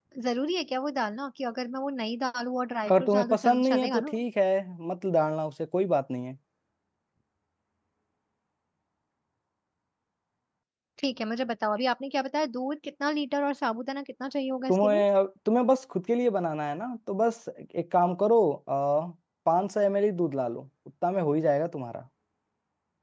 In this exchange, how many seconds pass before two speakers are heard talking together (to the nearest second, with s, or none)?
3 s